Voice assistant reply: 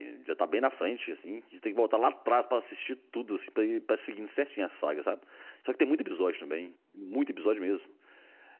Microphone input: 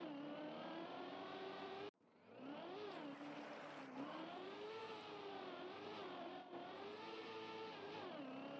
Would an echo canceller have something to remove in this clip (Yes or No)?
No